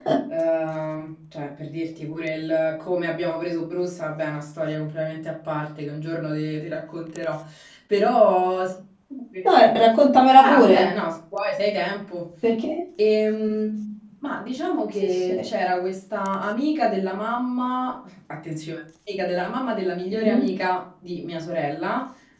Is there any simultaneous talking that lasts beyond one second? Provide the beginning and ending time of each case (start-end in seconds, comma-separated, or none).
none